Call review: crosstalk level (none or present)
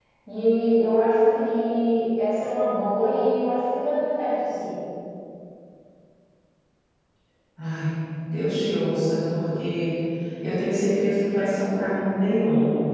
none